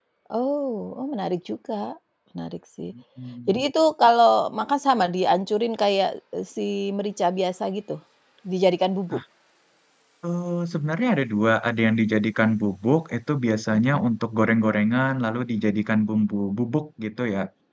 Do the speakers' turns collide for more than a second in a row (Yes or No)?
No